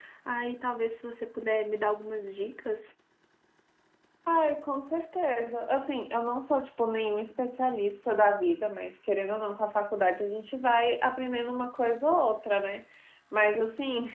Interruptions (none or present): none